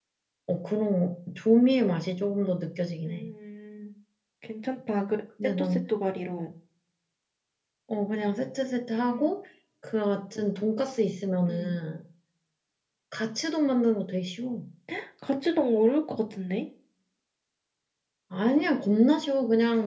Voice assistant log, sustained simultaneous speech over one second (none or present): none